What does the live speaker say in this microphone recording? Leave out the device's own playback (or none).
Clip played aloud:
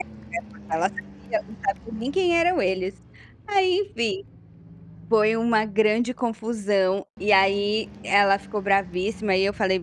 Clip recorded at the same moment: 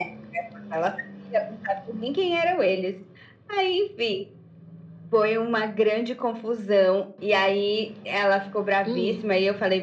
Hum.